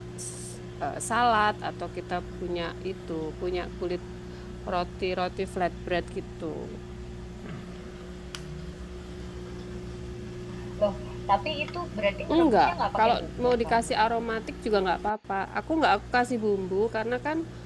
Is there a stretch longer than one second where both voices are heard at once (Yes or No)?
Yes